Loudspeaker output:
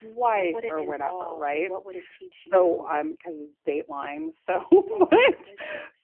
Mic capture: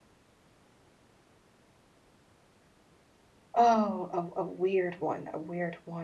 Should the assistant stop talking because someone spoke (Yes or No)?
Yes